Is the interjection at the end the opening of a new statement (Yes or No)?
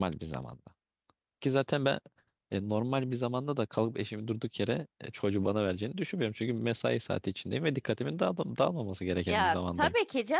Yes